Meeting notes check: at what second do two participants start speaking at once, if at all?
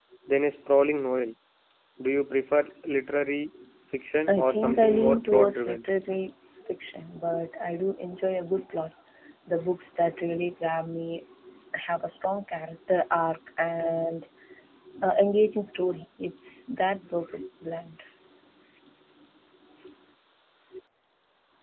4 s

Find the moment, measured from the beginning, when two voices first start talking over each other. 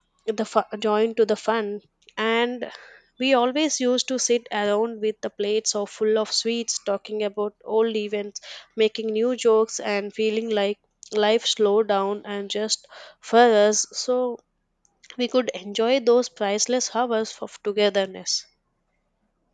none

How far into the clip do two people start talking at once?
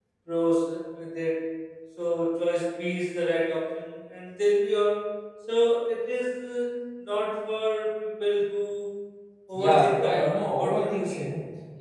10 s

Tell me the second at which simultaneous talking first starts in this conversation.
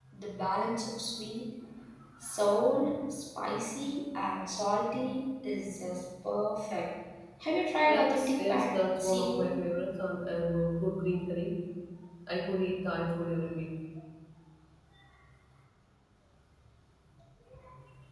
8 s

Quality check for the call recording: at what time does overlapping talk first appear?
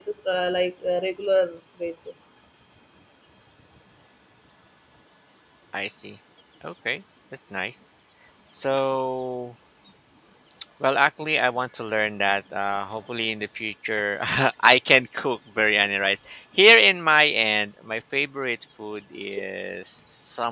none

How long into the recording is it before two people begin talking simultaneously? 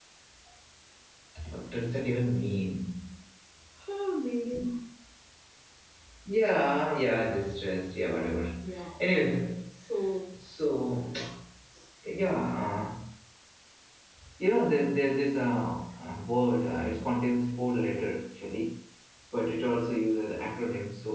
none

